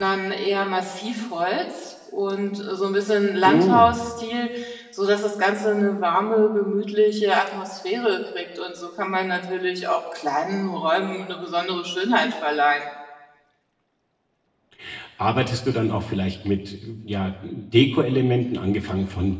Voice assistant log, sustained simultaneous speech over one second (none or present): none